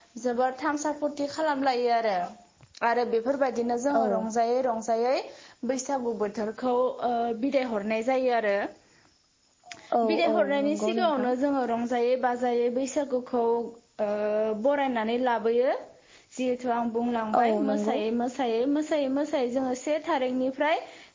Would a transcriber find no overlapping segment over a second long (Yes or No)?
No